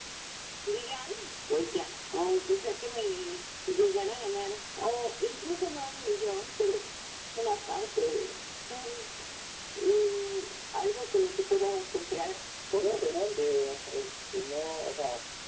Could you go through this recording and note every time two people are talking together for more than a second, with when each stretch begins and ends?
none

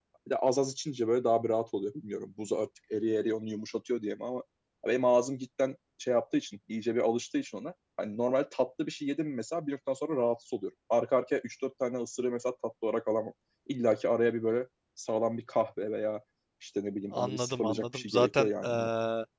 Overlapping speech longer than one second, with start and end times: 17.1-18.9

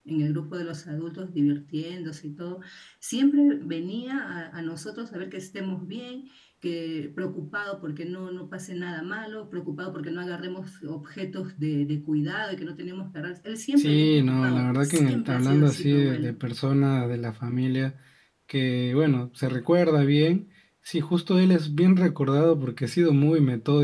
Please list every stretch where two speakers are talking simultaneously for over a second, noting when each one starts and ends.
13.8-16.4

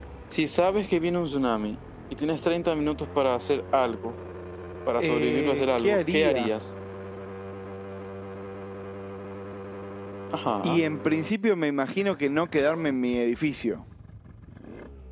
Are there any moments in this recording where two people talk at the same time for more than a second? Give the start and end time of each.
5.0-6.5

